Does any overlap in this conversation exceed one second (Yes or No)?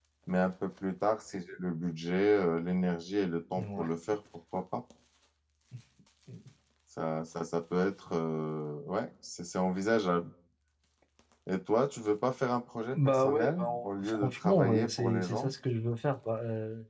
Yes